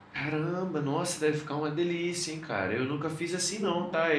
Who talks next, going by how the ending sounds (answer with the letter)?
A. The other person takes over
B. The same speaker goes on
B